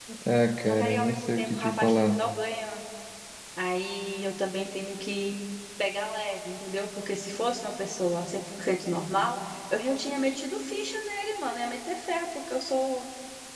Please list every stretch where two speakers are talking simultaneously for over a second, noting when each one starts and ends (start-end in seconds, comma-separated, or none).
0.7-2.2